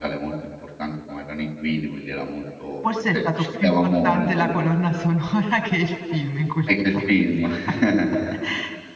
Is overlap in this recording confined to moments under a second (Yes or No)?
No